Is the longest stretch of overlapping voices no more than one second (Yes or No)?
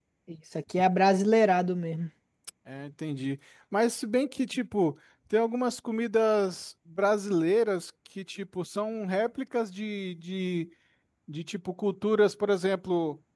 Yes